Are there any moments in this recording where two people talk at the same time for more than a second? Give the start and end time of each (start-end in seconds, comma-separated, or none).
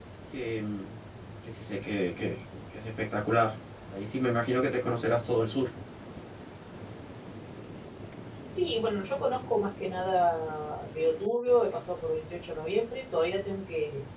none